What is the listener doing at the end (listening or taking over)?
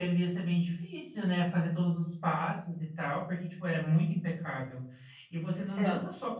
listening